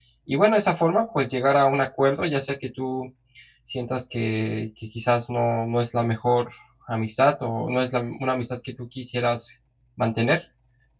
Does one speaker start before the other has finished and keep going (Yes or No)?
No